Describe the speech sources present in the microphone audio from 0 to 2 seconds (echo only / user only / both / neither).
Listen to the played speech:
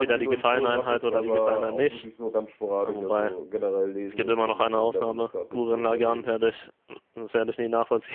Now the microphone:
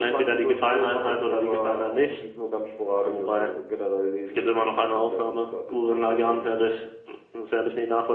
echo only